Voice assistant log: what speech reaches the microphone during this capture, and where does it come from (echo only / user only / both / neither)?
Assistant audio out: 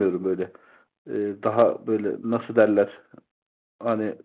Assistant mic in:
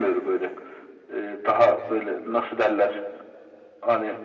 echo only